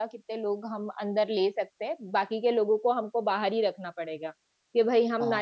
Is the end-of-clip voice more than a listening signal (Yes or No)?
No